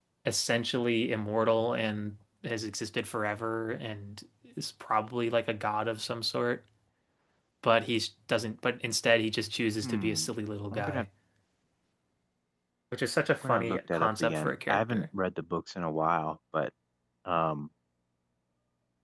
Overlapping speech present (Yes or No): Yes